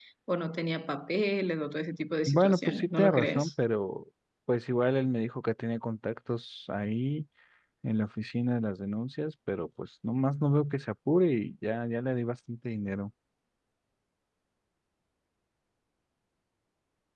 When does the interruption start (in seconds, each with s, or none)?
2.3 s